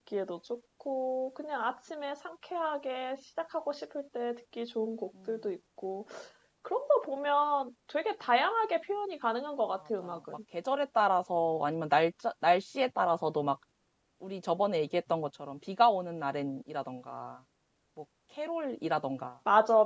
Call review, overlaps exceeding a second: none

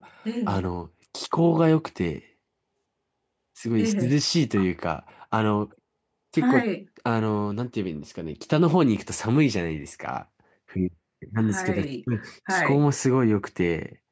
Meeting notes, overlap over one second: none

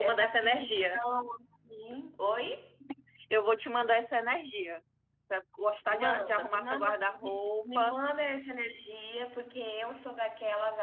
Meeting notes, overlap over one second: present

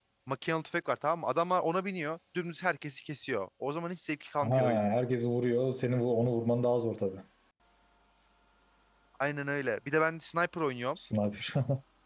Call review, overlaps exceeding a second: none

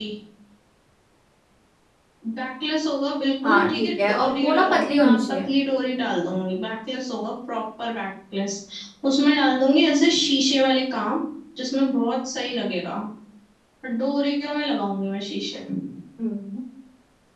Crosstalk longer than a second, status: present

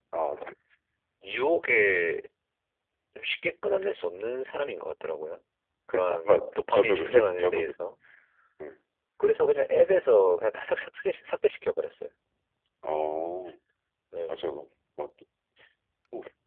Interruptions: present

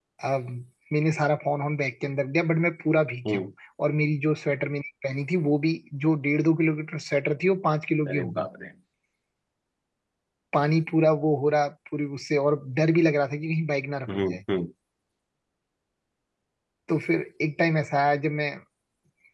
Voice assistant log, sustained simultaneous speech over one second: none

